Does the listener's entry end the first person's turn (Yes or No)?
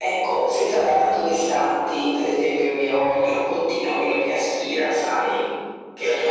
No